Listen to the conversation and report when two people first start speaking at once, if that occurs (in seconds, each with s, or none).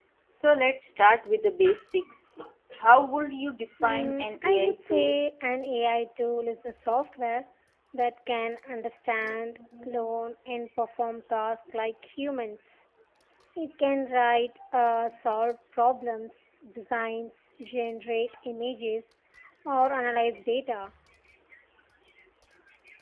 3.8 s